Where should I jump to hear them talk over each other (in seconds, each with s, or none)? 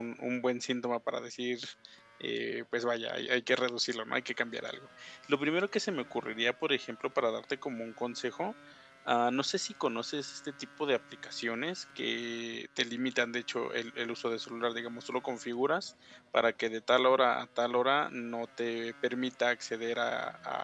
none